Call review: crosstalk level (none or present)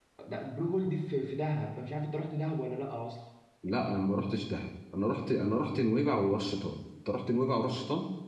none